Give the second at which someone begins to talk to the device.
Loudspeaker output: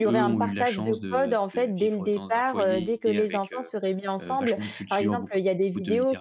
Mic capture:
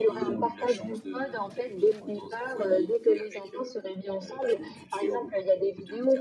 none

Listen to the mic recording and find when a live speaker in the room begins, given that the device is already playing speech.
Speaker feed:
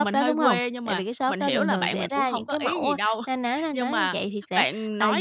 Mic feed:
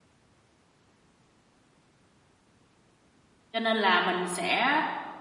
3.5 s

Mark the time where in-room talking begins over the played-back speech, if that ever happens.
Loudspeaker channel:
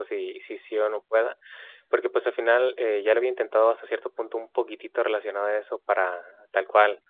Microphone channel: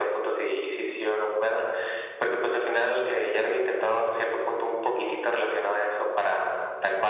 none

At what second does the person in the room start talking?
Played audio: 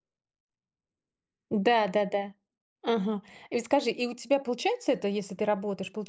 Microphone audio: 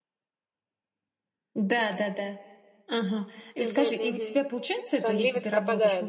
3.6 s

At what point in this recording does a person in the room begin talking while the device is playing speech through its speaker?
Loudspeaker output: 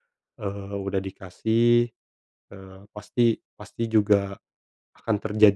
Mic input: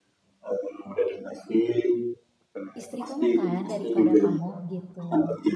2.8 s

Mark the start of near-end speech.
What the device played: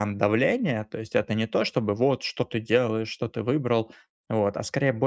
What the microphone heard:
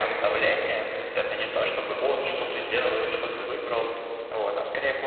none

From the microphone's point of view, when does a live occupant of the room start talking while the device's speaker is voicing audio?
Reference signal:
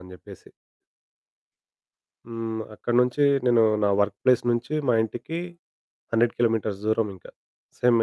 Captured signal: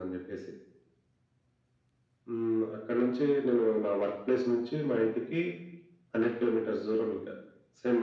none

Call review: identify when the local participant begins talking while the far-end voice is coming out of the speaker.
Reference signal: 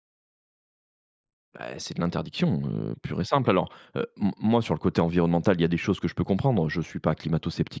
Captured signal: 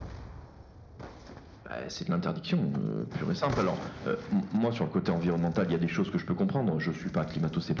none

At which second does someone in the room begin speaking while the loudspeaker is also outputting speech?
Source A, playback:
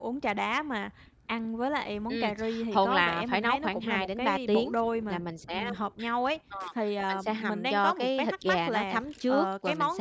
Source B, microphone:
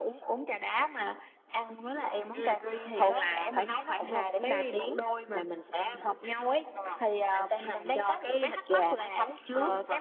none

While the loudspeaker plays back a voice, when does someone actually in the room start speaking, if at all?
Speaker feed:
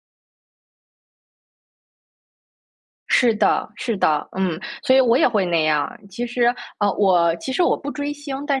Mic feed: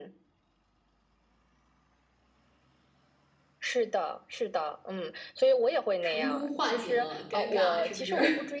6.0 s

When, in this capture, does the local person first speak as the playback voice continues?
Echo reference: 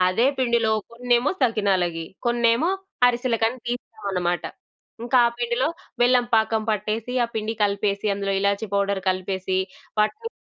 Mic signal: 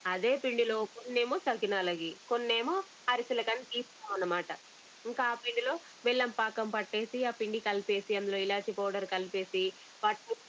none

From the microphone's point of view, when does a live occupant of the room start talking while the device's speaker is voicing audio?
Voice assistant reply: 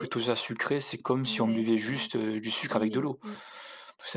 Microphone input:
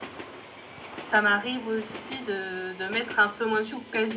1.0 s

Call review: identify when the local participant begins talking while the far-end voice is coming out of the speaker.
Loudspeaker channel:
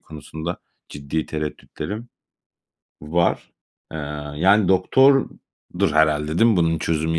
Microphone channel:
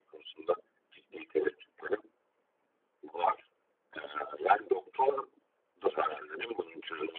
none

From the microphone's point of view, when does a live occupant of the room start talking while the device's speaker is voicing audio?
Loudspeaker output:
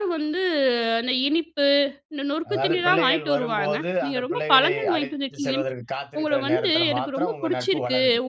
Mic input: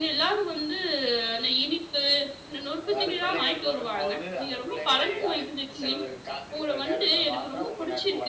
none

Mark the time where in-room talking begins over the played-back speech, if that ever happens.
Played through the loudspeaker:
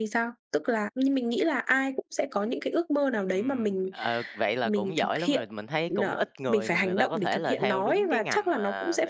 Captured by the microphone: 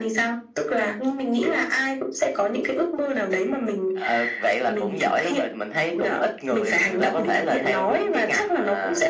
none

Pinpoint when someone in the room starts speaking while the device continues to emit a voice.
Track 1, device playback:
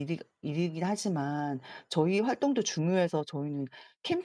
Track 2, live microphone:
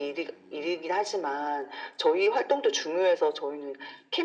none

